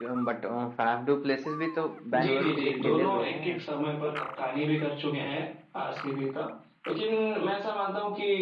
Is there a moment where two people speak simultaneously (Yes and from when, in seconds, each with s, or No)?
Yes, from 2.1 s